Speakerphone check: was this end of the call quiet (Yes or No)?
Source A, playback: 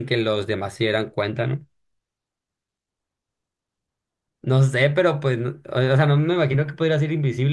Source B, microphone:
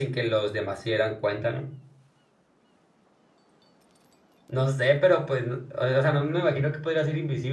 Yes